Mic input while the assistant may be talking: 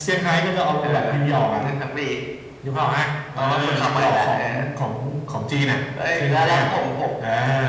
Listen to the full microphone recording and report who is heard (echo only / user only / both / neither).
echo only